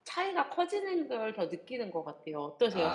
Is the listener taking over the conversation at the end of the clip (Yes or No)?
Yes